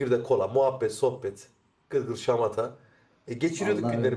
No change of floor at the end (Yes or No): Yes